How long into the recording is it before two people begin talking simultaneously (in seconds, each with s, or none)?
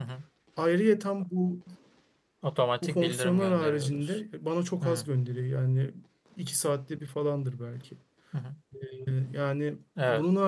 2.8 s